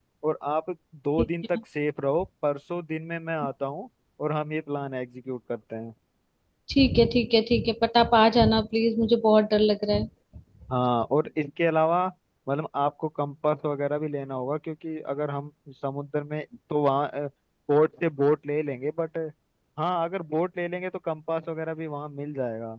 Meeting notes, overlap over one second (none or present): none